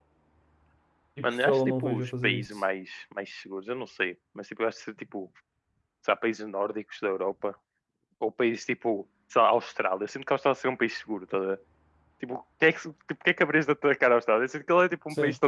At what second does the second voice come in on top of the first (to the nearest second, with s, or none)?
1 s